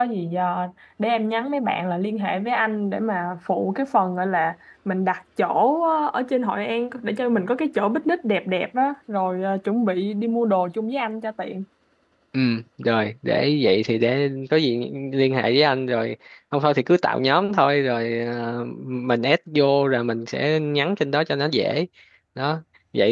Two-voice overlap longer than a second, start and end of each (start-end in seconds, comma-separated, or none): none